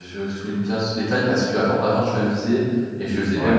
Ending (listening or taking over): listening